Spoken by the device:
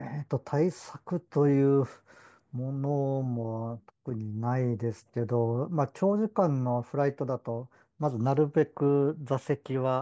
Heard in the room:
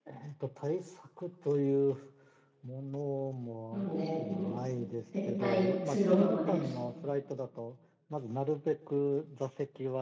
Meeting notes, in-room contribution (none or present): present